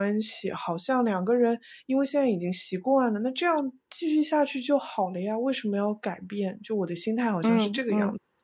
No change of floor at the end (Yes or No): No